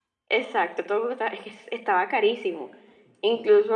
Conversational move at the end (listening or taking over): listening